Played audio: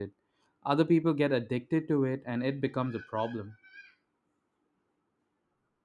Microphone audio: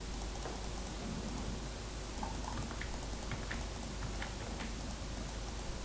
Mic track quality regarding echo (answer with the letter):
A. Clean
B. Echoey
A